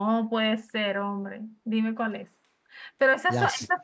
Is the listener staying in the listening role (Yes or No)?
Yes